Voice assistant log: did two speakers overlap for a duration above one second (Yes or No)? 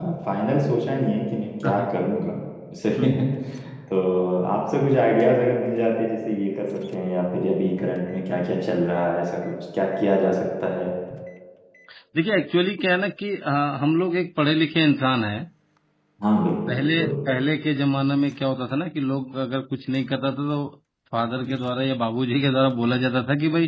No